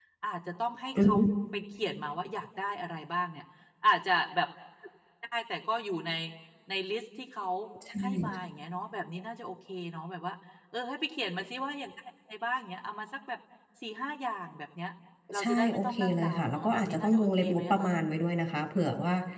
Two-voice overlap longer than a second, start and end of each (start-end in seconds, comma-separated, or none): 15.4-17.9